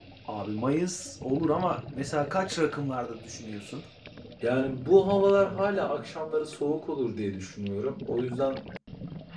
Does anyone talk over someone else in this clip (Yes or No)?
No